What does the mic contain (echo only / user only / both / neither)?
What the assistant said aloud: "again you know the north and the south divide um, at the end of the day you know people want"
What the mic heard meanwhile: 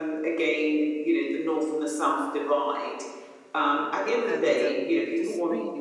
both